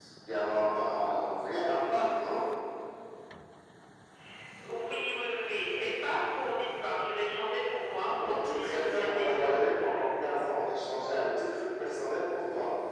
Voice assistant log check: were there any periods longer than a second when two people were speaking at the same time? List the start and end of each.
8.2-9.5

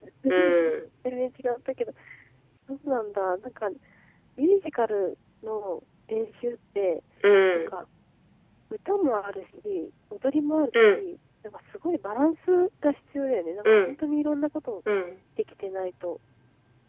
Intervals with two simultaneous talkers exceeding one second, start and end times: none

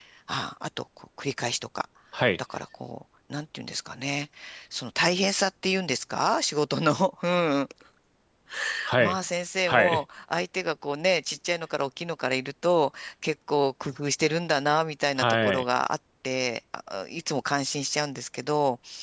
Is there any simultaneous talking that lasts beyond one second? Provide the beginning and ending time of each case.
none

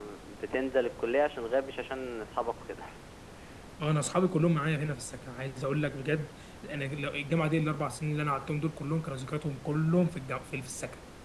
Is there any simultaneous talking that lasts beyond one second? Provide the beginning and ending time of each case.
none

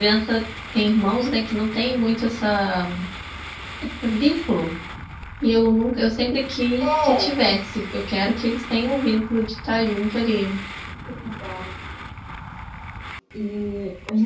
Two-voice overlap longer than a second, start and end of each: none

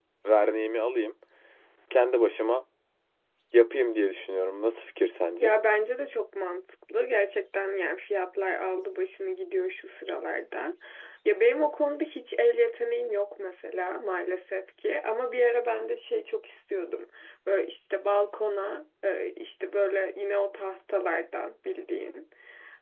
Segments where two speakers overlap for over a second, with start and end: none

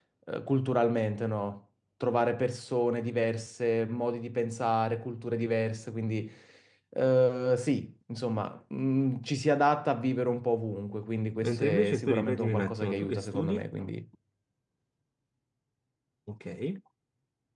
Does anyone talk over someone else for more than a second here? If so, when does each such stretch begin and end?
11.4-13.7

